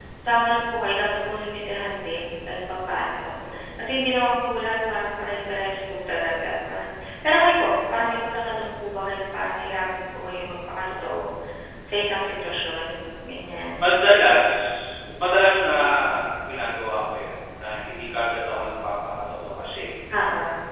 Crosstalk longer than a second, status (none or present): none